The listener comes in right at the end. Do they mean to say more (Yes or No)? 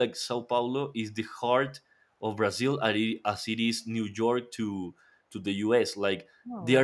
No